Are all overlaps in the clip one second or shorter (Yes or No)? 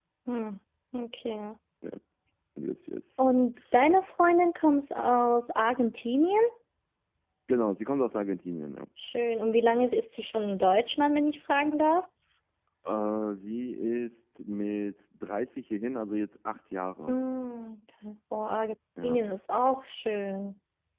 Yes